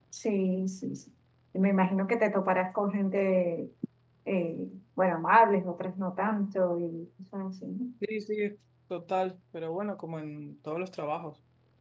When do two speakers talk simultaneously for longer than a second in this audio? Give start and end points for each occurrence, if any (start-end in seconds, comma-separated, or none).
none